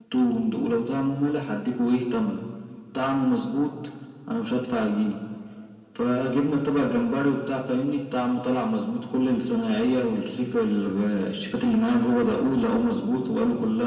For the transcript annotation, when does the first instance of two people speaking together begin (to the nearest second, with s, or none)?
none